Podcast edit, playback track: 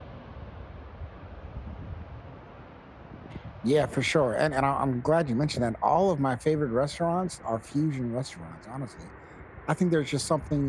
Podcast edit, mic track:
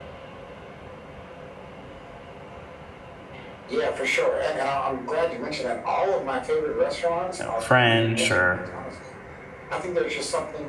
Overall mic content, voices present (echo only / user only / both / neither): both